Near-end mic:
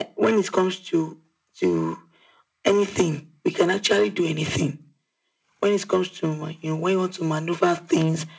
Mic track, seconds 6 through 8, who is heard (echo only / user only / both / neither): echo only